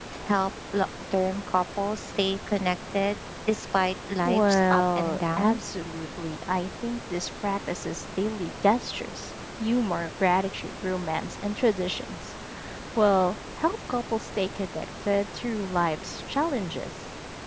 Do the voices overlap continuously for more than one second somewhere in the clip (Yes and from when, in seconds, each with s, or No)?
Yes, from 4.2 s